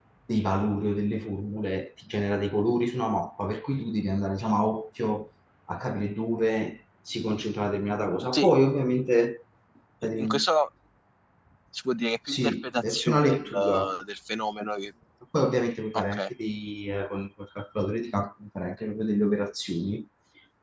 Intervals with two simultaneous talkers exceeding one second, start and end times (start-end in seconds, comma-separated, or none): 12.3-13.9